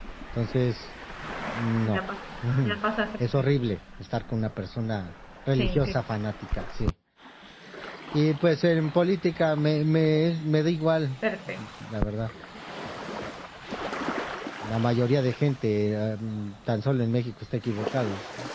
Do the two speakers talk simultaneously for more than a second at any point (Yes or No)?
No